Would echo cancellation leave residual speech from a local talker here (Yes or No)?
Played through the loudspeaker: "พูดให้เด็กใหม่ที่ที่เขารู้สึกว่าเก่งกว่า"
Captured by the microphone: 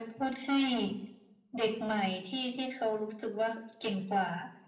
No